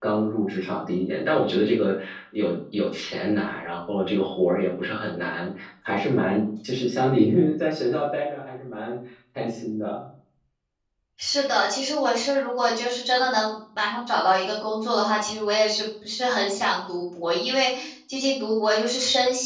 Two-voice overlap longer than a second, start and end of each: none

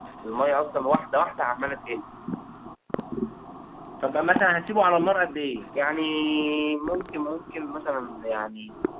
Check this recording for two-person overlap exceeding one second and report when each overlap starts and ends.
none

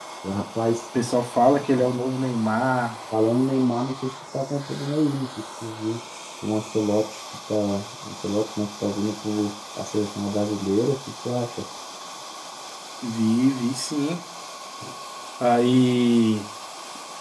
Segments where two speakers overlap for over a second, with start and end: none

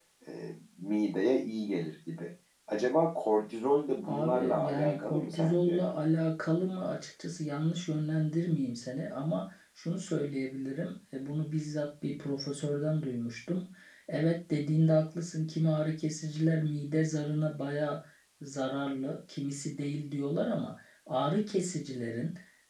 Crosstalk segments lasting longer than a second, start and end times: 4.0-5.8

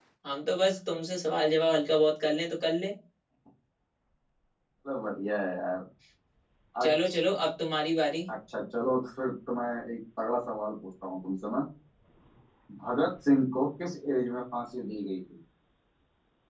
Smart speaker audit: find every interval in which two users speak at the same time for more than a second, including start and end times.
none

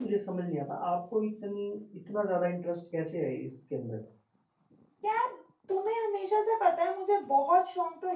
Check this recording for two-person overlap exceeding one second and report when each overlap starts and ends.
none

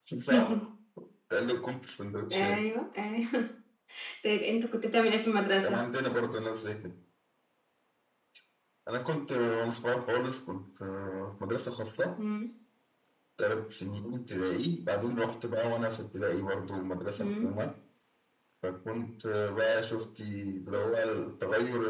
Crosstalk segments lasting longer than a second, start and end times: none

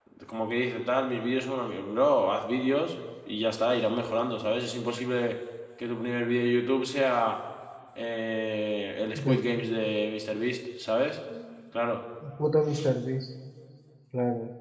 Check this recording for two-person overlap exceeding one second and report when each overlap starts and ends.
none

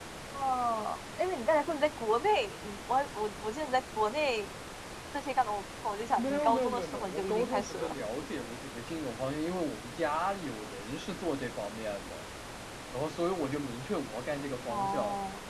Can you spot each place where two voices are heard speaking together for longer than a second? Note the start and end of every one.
6.2-7.9

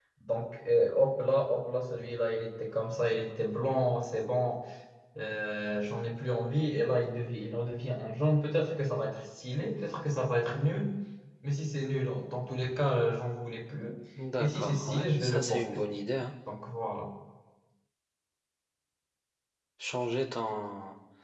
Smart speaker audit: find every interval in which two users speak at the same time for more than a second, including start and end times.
14.4-15.8

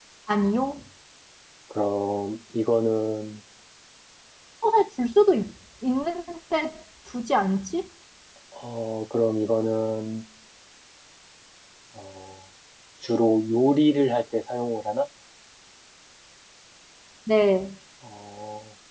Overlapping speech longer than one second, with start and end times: none

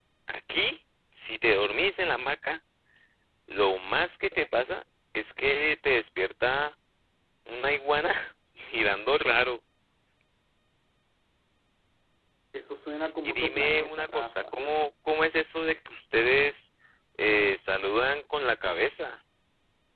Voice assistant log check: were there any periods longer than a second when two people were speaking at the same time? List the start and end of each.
13.2-14.5

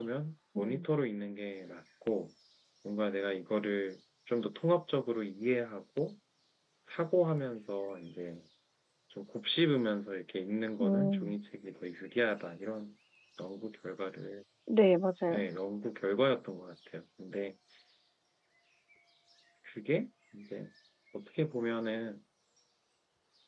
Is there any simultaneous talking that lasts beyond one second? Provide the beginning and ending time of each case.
none

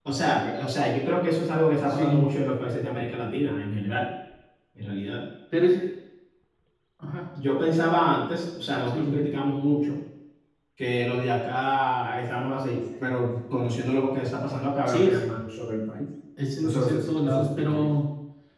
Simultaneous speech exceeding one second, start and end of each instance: 16.6-17.9

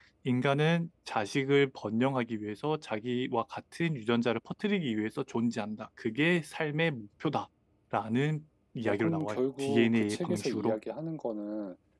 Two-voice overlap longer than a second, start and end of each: 8.8-10.8

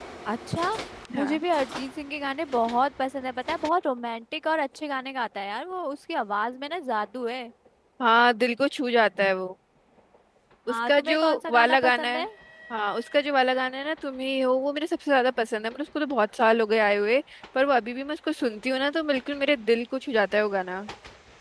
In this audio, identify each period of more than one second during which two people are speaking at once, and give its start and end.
10.9-12.2

